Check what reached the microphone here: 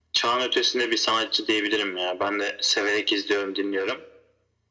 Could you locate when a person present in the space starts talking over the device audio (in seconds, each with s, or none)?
none